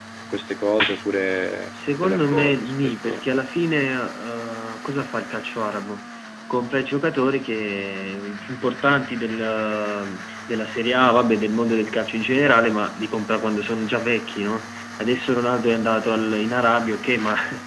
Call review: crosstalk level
present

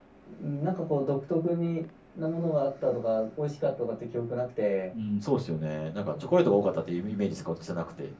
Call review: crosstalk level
none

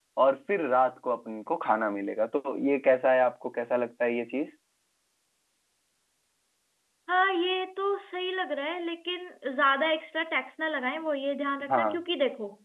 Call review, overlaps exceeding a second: none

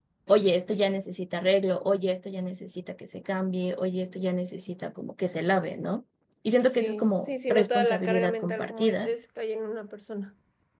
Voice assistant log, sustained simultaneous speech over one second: present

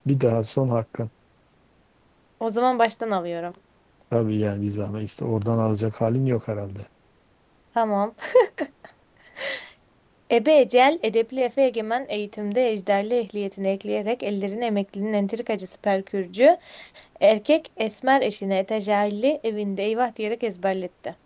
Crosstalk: none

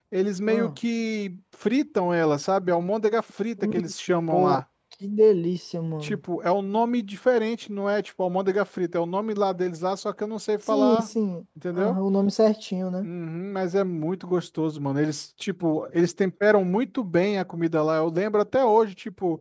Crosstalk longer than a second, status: none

